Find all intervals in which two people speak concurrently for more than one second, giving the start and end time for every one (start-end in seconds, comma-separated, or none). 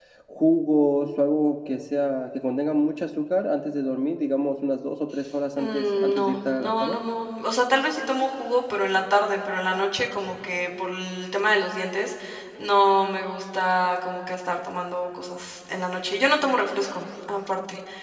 5.6-7.0